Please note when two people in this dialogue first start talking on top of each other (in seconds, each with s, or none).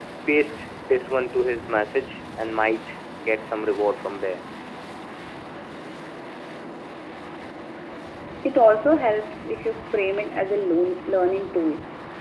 none